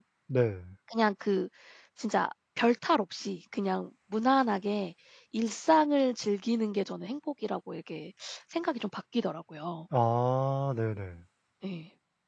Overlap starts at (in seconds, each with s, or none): none